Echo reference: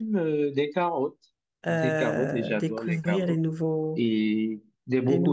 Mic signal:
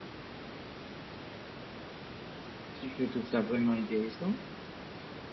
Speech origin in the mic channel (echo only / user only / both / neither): user only